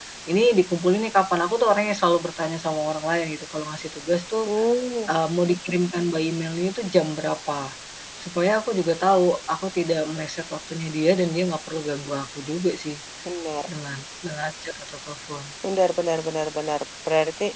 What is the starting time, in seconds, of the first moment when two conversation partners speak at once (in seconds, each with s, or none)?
none